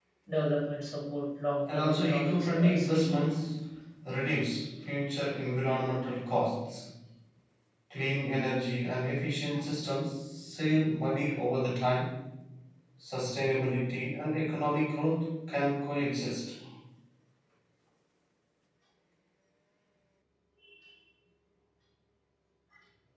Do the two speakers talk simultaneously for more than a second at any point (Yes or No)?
Yes